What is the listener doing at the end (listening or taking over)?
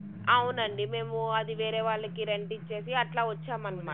taking over